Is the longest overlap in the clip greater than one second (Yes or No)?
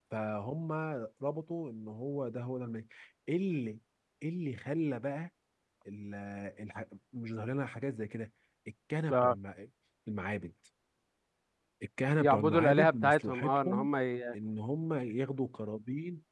Yes